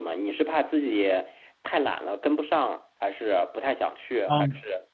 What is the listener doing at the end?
taking over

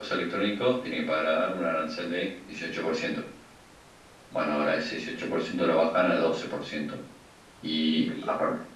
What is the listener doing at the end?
listening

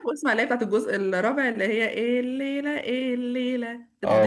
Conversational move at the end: taking over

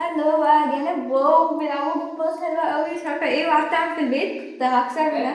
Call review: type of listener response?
taking over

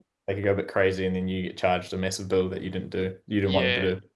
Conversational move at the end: taking over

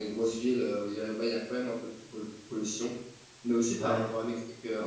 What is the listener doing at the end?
listening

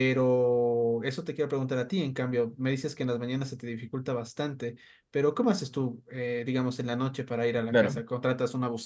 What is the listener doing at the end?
listening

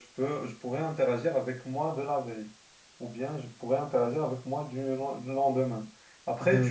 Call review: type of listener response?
taking over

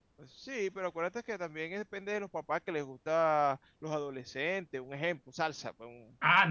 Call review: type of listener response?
taking over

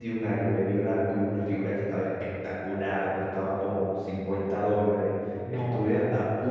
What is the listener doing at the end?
listening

